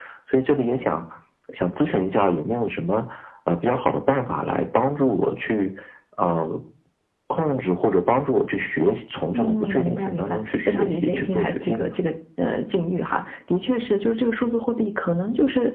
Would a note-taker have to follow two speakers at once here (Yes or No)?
Yes